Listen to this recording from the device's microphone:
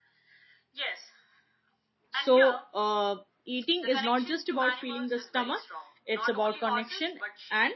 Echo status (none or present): present